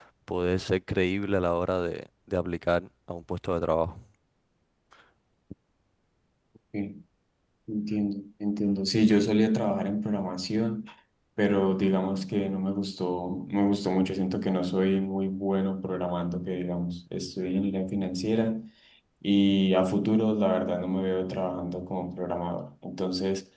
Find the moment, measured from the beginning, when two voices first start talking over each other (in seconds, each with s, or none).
none